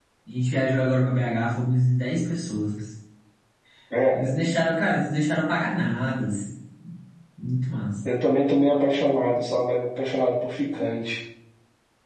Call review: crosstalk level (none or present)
none